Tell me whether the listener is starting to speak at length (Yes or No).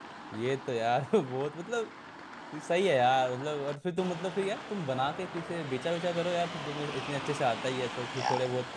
No